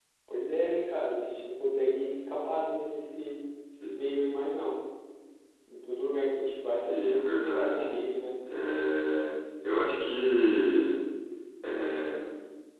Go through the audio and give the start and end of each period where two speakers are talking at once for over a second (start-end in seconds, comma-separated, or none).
6.6-7.8